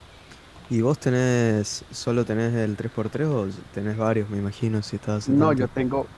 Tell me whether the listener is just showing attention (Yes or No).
No